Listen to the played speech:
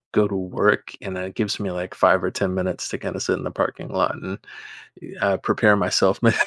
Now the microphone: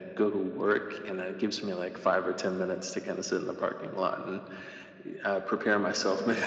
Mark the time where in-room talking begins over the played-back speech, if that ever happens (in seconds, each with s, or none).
none